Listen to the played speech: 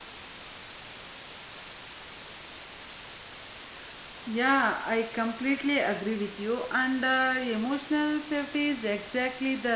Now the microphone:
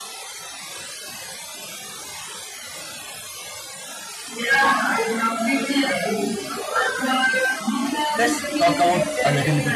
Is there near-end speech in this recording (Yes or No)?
Yes